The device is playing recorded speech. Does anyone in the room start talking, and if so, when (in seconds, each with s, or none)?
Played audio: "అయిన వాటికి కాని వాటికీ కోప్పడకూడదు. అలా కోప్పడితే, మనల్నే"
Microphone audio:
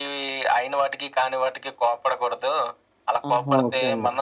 3.3 s